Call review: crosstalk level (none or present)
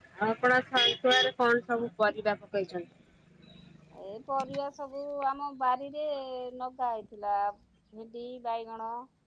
none